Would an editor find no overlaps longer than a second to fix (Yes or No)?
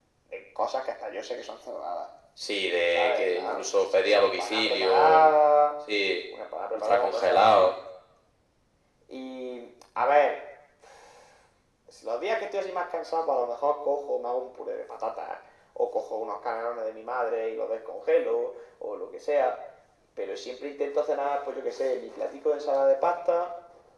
No